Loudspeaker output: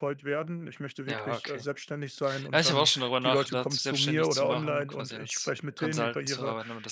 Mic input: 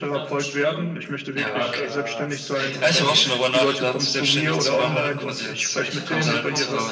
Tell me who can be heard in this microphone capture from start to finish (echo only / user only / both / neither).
both